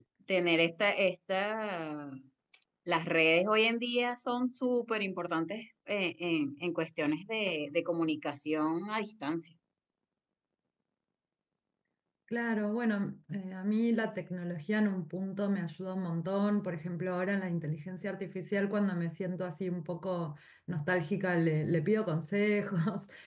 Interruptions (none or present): none